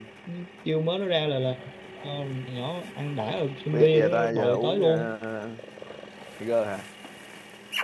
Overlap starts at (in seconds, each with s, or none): 3.7 s